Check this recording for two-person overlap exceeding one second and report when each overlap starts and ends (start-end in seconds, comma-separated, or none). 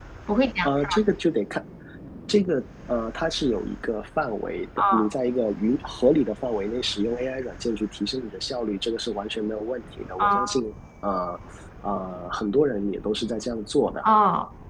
none